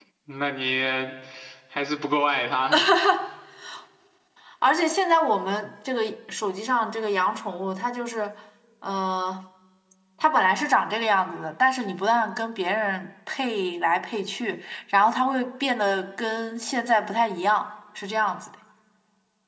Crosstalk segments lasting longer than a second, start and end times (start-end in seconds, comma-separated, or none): none